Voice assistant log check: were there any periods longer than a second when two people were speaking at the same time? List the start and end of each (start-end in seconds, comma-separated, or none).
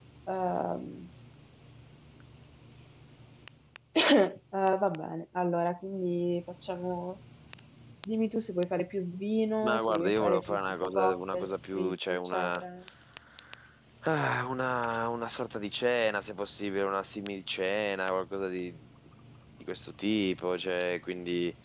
9.6-12.6